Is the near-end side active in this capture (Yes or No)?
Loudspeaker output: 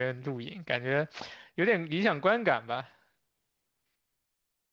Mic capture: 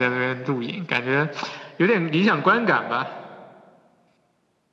No